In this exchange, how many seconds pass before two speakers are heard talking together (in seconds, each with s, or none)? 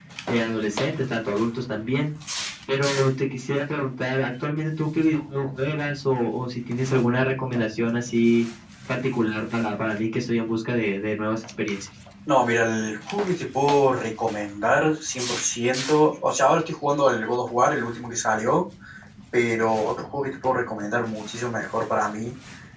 none